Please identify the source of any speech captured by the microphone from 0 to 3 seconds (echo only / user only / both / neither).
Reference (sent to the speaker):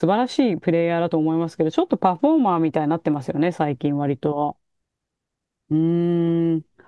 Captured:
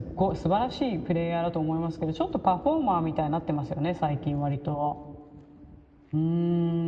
echo only